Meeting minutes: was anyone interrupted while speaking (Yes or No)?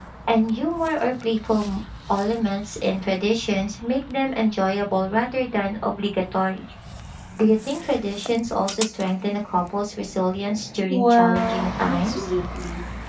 Yes